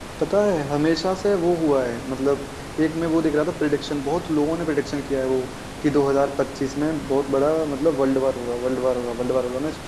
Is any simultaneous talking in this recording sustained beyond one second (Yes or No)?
No